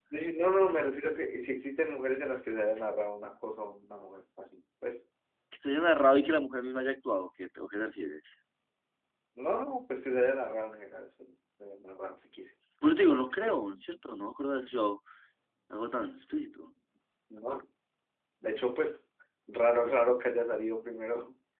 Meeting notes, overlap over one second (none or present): none